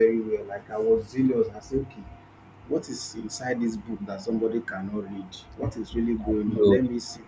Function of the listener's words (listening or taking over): listening